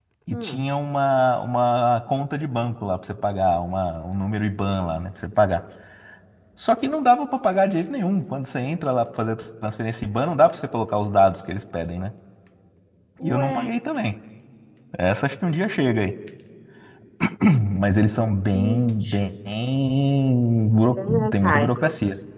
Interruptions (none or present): present